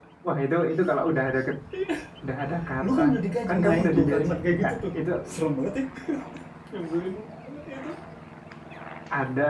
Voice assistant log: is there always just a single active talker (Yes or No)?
No